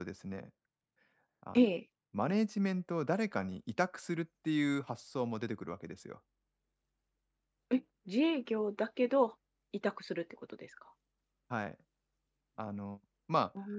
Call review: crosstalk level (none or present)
none